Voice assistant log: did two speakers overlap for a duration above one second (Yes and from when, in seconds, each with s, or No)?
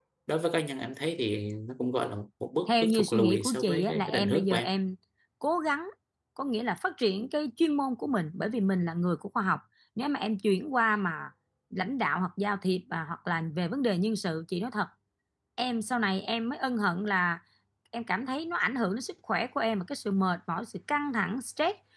Yes, from 2.7 s